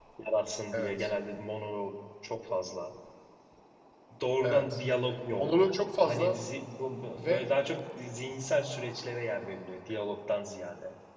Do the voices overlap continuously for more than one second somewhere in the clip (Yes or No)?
No